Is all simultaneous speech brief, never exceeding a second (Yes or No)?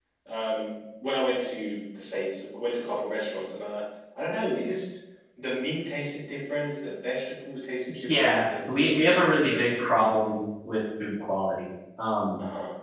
No